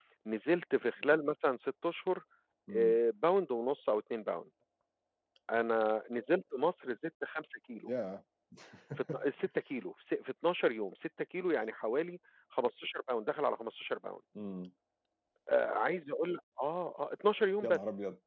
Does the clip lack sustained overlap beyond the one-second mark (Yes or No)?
Yes